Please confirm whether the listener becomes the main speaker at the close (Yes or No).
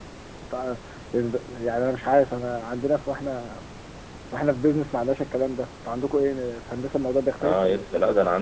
Yes